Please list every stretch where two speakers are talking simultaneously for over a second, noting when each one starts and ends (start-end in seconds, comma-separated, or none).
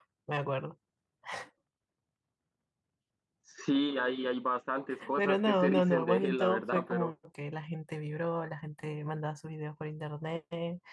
5.2-7.1